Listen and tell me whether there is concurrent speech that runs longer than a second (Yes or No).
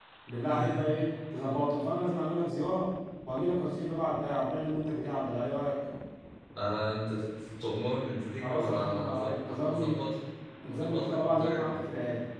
Yes